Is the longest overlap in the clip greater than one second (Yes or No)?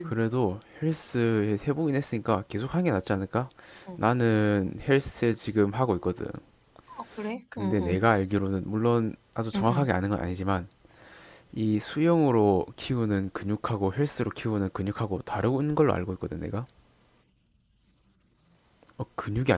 No